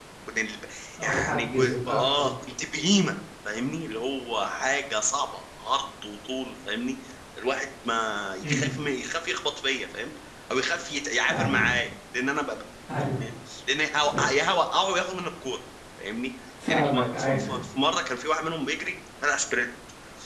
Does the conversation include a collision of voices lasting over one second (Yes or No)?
Yes